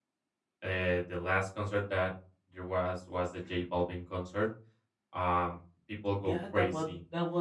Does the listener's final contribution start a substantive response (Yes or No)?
Yes